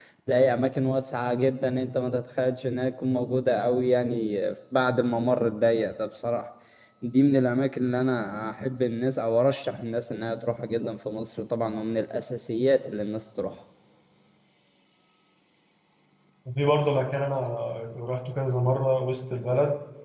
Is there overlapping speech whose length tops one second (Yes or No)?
No